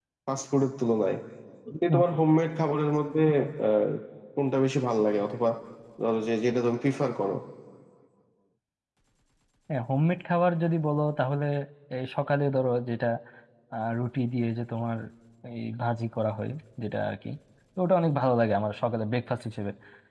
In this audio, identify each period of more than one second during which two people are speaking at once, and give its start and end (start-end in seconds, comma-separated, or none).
none